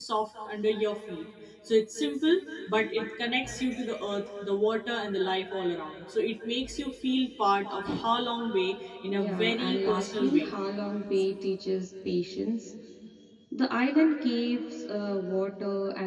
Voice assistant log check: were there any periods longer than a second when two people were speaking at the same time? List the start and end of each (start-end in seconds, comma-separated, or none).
9.1-10.5